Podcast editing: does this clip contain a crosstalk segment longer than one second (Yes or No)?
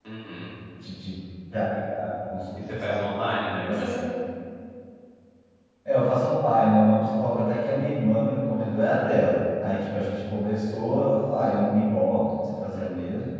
No